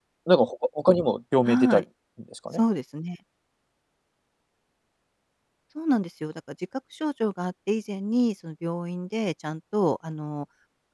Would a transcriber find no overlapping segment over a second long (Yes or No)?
Yes